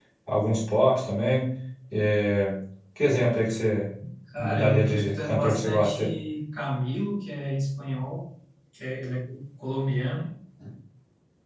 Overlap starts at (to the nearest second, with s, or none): 4 s